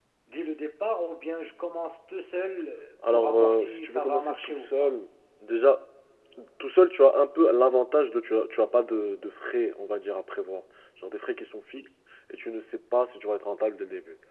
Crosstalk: present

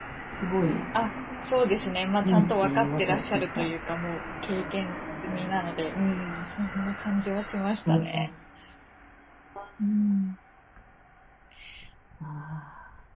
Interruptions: present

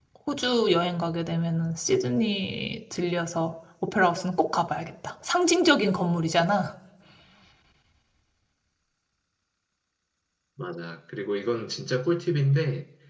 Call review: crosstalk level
none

